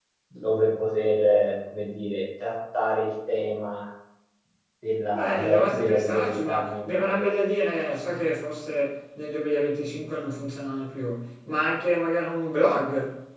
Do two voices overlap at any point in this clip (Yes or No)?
Yes